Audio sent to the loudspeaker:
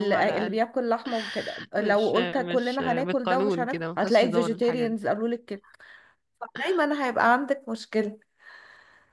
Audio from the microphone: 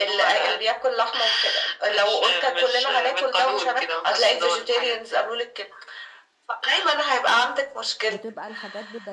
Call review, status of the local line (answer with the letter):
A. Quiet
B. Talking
B